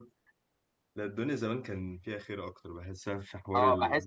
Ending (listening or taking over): taking over